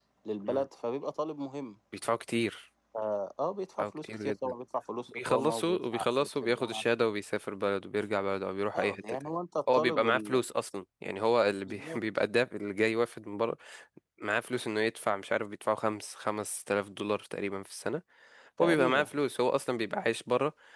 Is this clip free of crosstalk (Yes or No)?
No